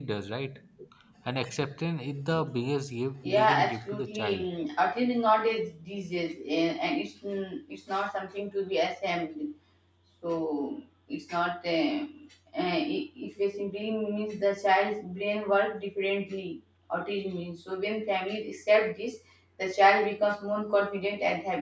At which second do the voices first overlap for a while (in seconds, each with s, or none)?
3.2 s